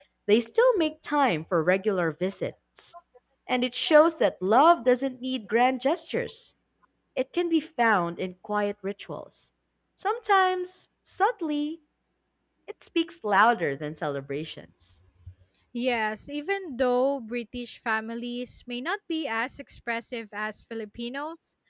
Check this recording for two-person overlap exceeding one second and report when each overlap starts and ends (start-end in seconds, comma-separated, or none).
none